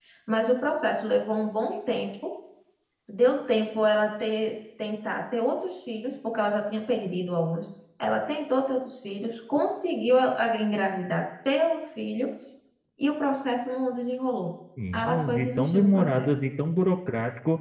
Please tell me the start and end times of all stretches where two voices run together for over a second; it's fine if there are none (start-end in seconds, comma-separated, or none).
14.9-16.3